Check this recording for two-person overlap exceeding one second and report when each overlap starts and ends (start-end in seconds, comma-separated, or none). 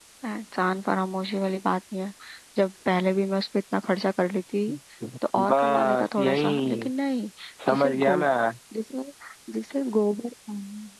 5.5-6.9